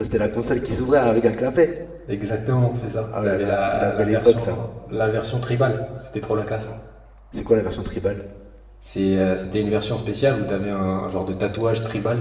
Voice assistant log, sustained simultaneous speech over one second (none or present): present